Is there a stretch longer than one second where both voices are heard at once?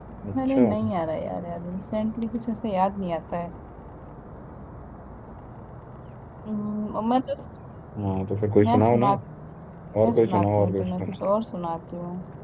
Yes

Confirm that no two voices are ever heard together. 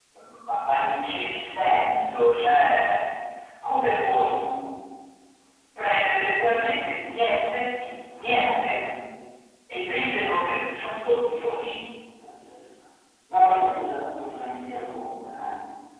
Yes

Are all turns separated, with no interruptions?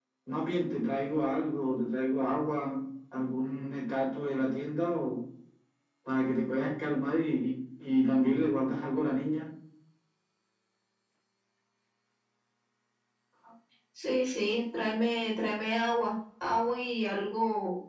Yes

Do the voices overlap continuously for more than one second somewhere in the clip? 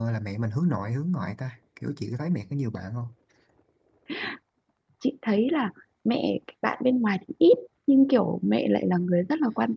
No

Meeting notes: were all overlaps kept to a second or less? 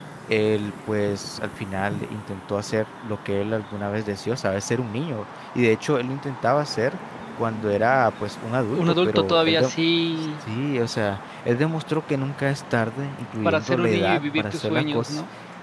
No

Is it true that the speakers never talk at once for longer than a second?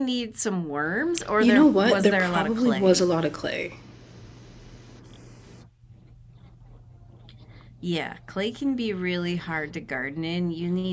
No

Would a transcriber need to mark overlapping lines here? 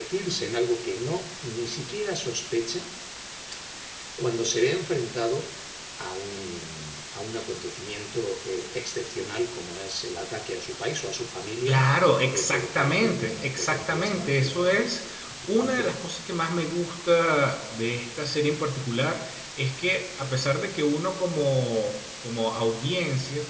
Yes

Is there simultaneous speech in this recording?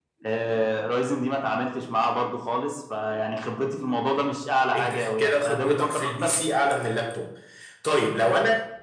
Yes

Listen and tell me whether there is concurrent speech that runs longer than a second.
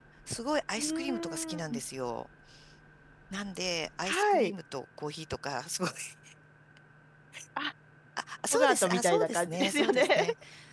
Yes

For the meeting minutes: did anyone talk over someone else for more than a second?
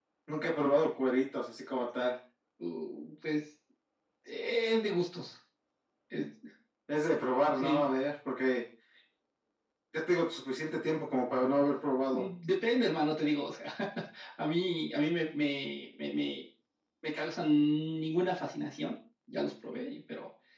No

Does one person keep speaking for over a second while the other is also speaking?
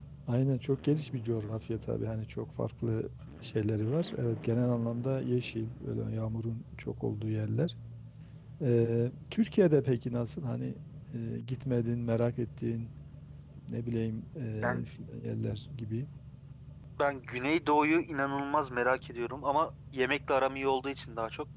No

